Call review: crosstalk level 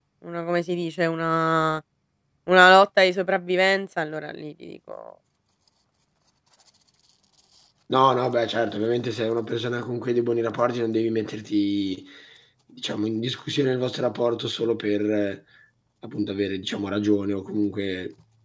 none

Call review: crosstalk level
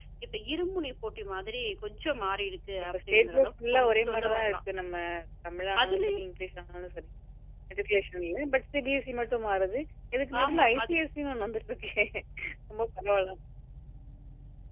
present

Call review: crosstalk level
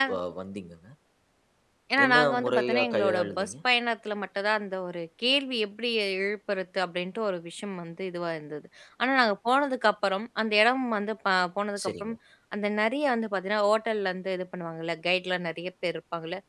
present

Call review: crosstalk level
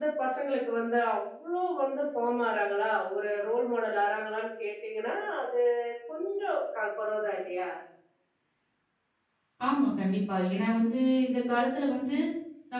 none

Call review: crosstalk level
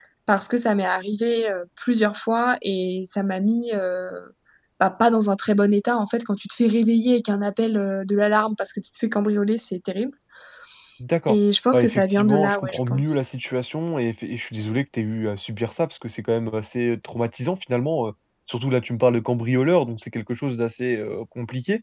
present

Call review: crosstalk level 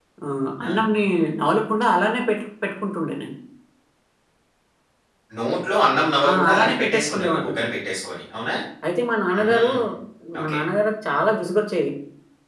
present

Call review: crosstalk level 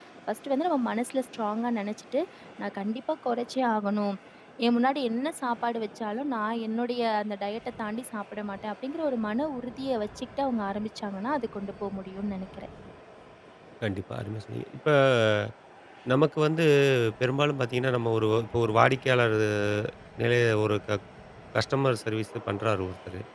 none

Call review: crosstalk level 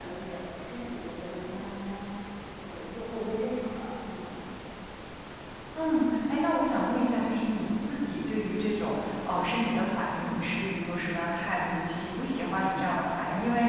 none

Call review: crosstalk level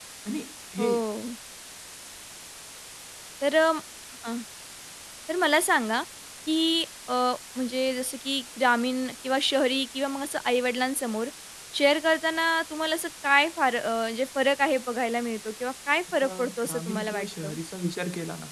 present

